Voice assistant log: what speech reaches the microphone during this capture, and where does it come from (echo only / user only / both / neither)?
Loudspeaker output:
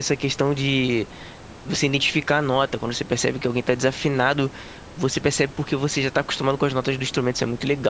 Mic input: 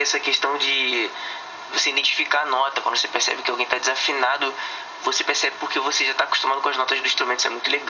echo only